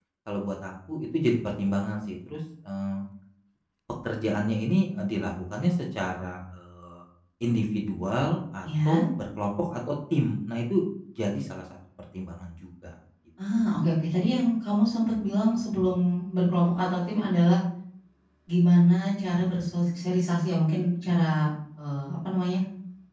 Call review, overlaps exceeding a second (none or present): none